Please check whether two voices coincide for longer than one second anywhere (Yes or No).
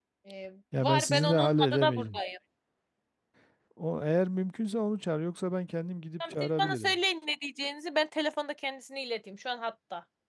Yes